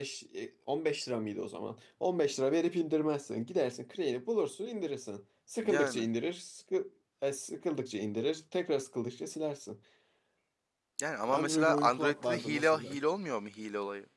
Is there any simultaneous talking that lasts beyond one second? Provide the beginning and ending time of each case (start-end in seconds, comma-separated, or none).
11.3-13.0